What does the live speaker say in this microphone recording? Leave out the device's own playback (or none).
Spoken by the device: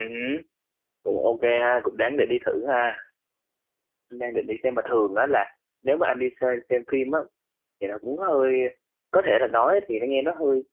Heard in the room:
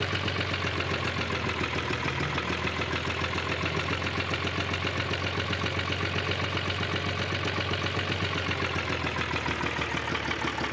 none